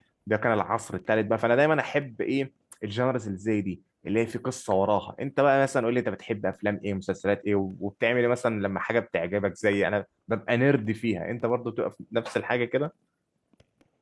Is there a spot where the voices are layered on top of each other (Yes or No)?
No